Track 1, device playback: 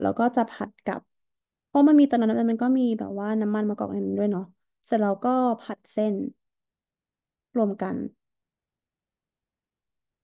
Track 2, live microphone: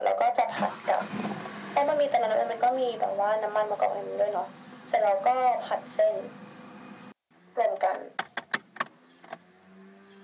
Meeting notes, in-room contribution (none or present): none